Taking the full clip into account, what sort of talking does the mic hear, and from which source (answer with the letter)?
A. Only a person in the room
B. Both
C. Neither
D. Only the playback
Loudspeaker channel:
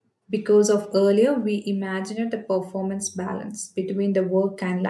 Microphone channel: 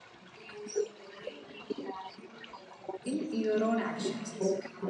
B